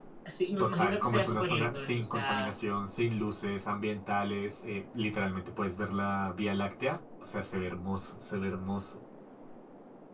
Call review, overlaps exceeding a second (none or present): present